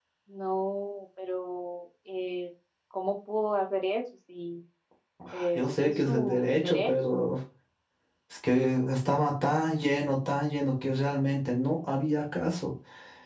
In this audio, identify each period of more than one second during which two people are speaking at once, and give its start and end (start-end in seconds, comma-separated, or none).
5.3-7.2